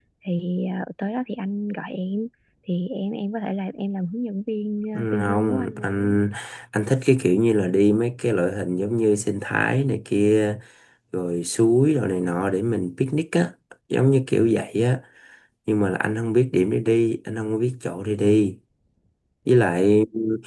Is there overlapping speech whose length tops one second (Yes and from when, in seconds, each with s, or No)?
Yes, from 4.9 s